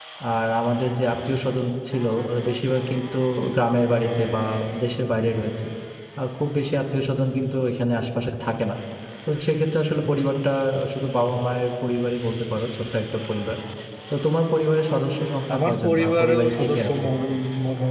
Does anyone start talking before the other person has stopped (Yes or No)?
Yes